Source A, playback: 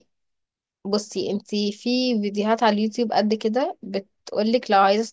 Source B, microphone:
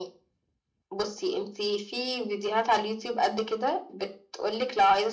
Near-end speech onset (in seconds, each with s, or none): none